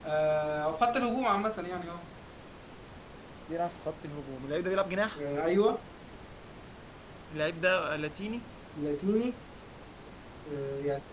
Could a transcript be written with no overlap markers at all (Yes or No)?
Yes